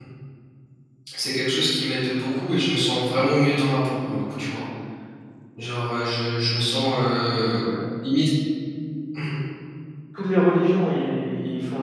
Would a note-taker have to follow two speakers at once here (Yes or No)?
No